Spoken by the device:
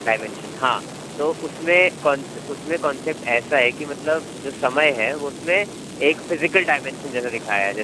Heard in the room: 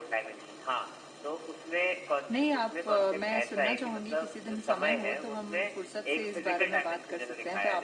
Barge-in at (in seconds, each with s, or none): 2.3 s